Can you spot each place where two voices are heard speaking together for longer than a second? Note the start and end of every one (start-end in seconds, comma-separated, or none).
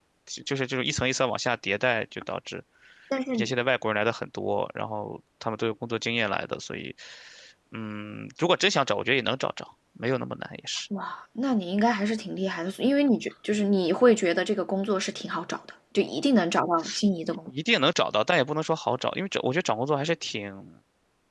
none